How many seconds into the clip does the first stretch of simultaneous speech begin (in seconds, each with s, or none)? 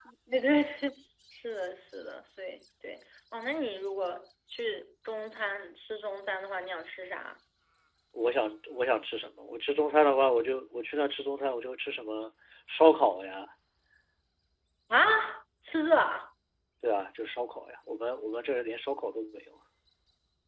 none